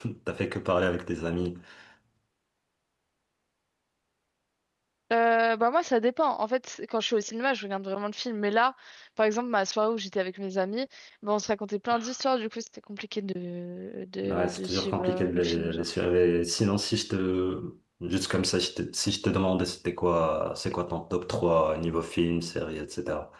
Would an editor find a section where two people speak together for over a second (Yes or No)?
Yes